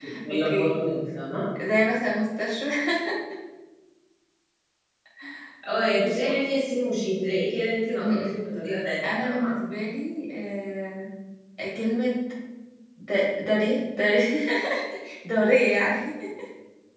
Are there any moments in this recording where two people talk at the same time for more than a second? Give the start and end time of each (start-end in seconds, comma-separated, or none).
none